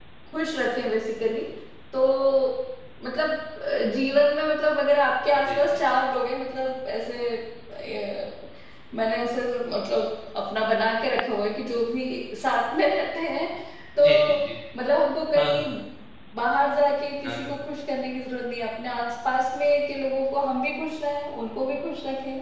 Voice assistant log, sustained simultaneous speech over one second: none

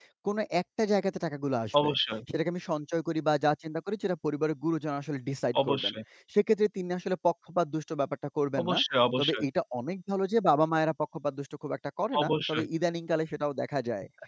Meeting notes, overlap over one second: none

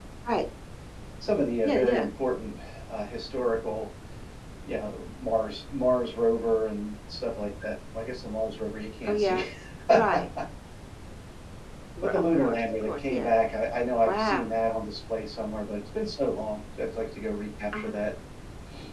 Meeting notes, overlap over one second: present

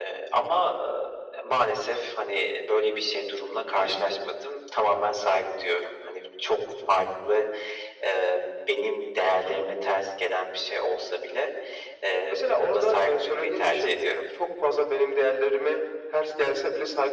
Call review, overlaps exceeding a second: present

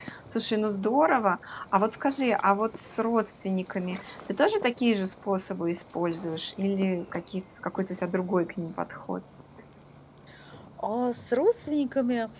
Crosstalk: none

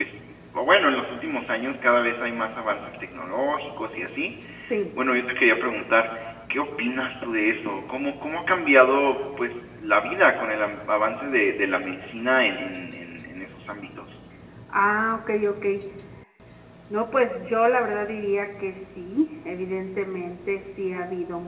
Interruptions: none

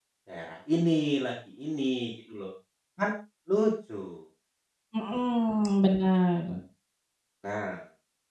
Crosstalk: none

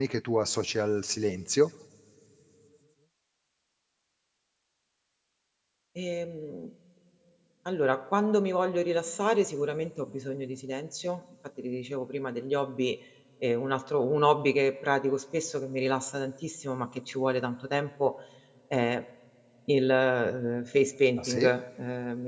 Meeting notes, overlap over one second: none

